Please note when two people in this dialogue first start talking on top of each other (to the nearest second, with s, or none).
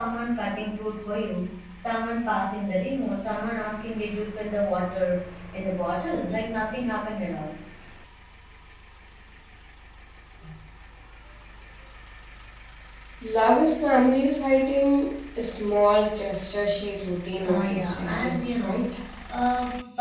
17 s